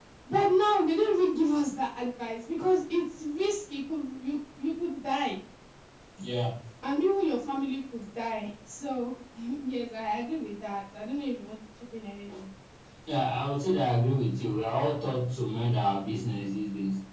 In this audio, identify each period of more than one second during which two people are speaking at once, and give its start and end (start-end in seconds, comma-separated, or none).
none